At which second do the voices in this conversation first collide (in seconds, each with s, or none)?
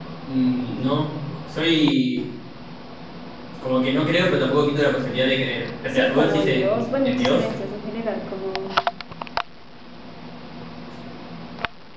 5.9 s